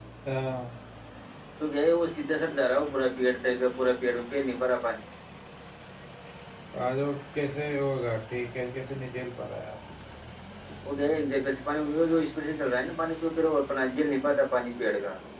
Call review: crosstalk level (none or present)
none